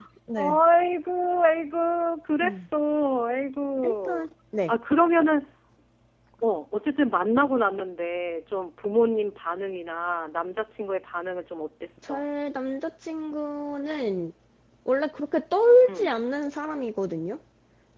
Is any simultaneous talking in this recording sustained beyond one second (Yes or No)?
No